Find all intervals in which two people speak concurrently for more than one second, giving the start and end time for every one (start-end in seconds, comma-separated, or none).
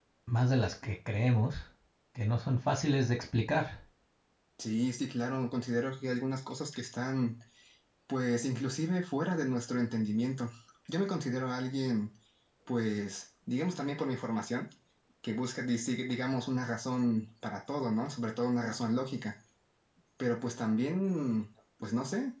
none